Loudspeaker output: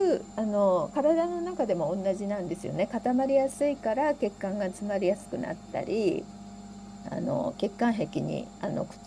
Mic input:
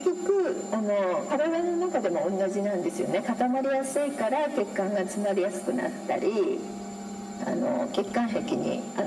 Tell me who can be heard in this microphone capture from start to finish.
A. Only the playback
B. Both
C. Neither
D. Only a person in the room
A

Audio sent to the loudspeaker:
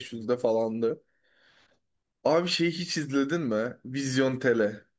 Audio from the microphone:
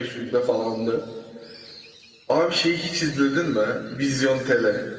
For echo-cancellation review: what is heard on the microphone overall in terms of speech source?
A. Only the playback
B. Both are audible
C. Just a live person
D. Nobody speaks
A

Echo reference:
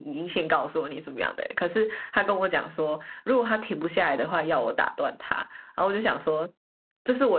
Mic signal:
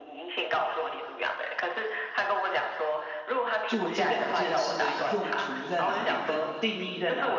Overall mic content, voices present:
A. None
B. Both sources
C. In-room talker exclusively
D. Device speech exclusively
B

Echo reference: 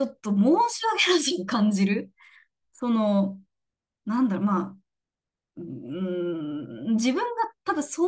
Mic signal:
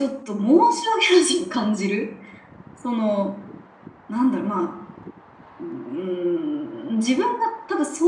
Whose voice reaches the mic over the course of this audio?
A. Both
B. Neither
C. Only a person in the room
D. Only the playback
D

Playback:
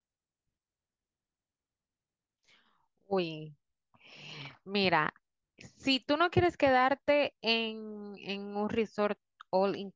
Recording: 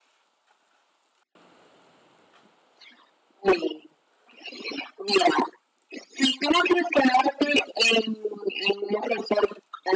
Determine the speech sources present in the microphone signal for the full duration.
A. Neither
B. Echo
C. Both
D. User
B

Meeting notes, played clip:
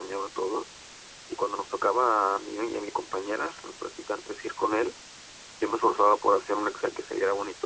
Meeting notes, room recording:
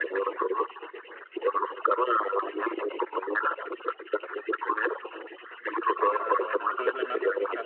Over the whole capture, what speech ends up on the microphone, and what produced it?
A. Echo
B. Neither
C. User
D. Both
D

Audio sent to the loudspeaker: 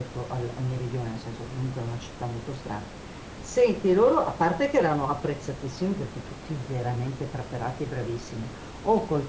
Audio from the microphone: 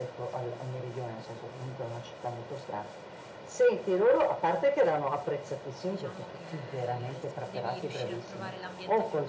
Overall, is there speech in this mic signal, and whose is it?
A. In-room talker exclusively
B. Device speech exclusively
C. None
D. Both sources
D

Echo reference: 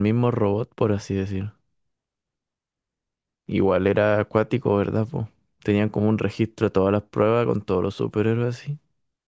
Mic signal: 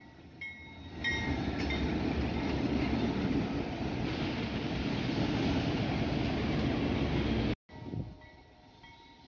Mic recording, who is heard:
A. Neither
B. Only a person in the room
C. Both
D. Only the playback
A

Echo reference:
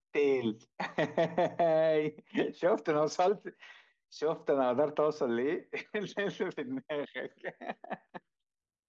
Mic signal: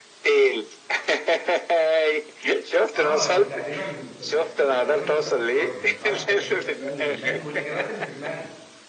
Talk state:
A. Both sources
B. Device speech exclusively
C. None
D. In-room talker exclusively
A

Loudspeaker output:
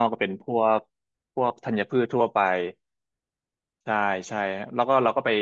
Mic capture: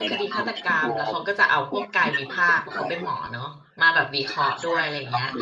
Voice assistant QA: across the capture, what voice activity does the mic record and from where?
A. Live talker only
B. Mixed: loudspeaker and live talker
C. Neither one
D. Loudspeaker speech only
B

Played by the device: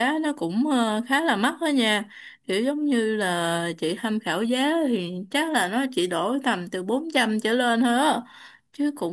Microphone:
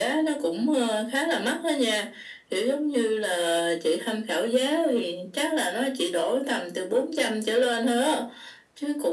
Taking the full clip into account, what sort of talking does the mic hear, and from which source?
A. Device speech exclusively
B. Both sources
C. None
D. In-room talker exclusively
A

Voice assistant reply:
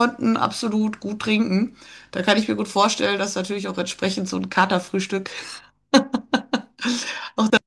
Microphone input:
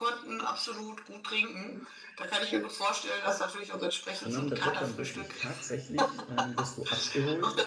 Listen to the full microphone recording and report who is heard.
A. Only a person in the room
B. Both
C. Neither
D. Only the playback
B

